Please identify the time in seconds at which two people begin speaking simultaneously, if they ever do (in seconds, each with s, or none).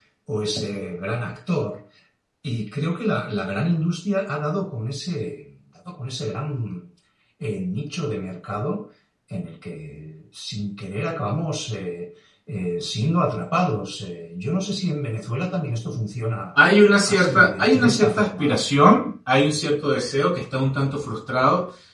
17.1 s